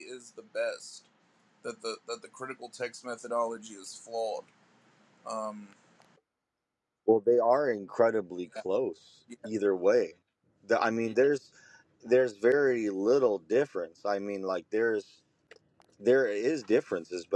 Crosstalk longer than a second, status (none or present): none